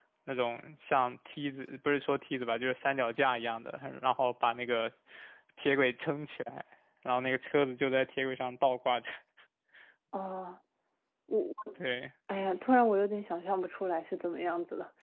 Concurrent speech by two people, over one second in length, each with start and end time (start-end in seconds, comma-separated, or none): none